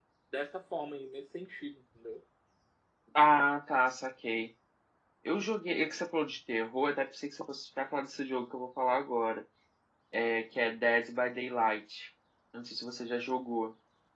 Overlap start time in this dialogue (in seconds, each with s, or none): none